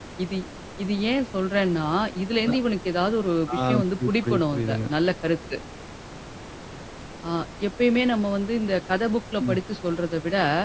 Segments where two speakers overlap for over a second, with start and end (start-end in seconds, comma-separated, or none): 3.6-4.8